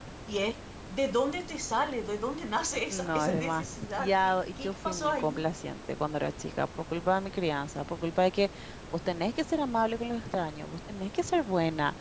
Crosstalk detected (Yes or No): Yes